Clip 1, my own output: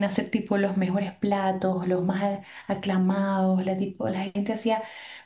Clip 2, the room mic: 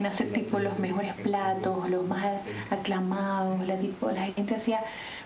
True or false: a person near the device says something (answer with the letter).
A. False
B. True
B